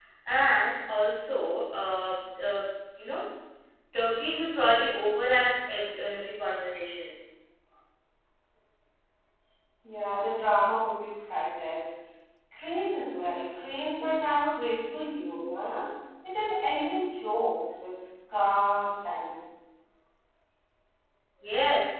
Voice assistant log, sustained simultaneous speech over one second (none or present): none